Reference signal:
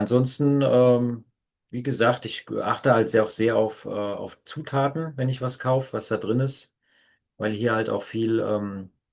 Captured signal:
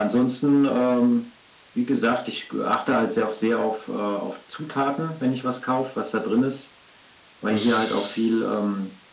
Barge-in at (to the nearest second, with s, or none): 7 s